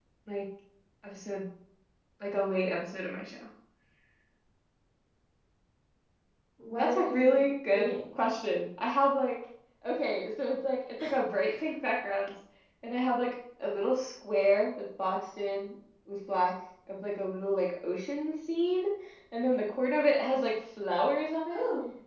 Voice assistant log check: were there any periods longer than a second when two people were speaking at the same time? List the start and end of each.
6.8-8.2

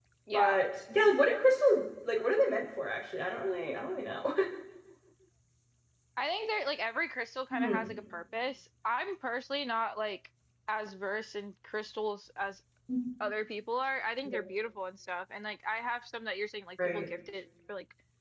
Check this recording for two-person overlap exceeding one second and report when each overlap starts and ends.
none

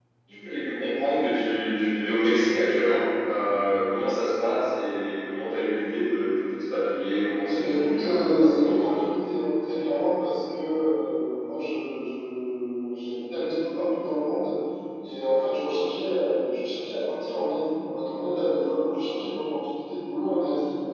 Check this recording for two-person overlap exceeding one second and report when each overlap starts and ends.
7.5-9.0

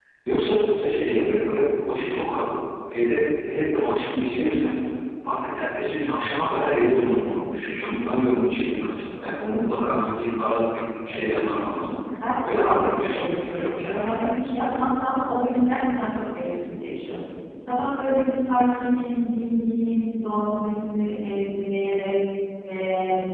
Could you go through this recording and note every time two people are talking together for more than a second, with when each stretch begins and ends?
12.4-14.2

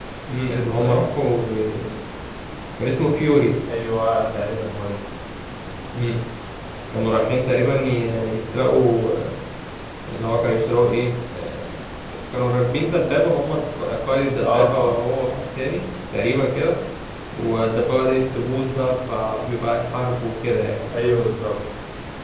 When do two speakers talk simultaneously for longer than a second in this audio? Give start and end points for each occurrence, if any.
none

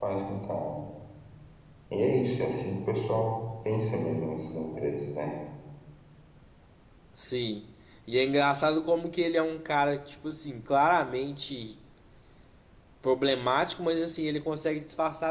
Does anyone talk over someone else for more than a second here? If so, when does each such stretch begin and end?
none

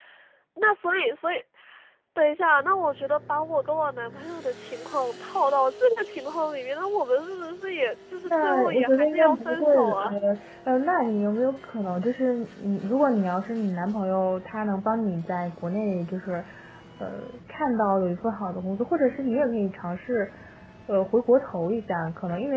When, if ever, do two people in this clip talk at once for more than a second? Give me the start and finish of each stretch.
8.3-10.1

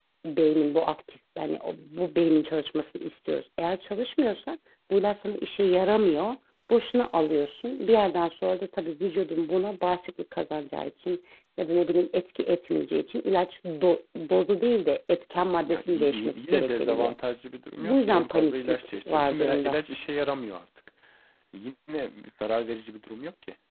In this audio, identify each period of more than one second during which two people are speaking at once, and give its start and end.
15.6-17.1, 17.8-19.8

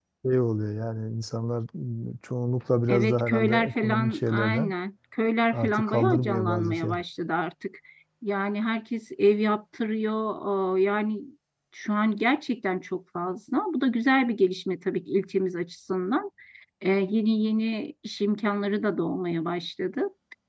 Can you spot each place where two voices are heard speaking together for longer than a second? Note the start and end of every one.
2.9-4.7, 5.5-7.0

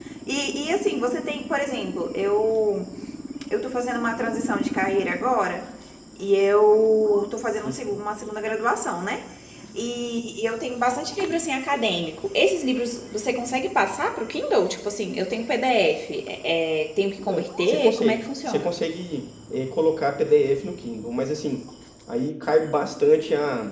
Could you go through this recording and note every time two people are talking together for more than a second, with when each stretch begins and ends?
17.2-18.7

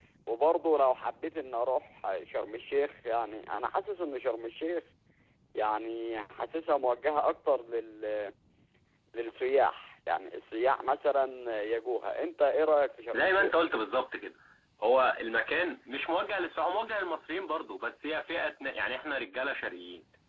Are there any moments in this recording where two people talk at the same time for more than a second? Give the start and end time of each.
none

